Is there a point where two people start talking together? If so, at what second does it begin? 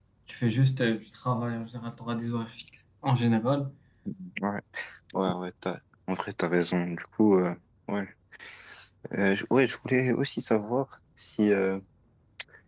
none

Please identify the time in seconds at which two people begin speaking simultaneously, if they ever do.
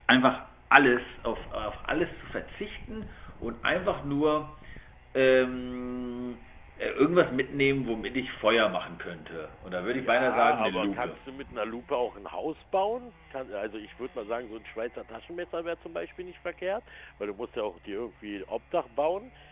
9.8 s

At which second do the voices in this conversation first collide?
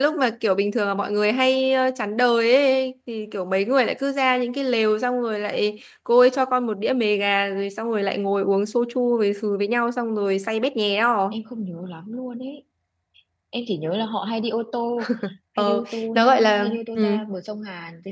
15.6 s

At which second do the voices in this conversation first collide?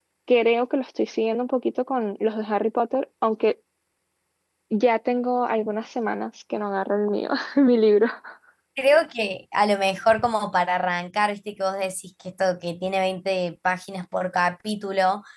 none

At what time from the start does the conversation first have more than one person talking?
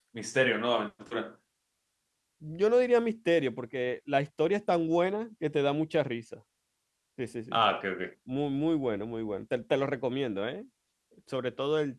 none

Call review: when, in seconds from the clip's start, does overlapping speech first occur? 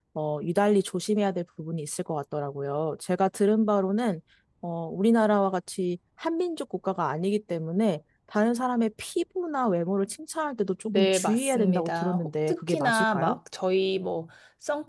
10.9 s

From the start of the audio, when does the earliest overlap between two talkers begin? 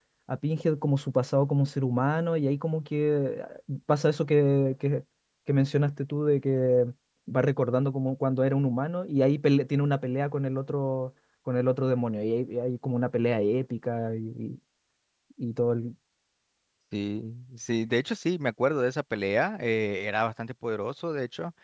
none

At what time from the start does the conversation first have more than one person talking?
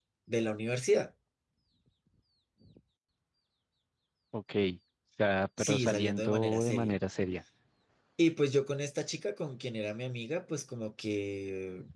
5.6 s

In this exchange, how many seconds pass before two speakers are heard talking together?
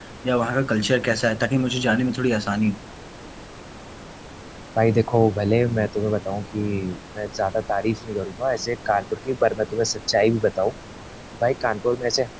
none

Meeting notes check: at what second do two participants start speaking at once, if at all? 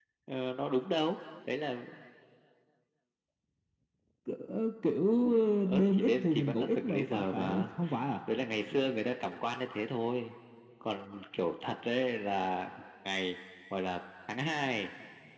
5.6 s

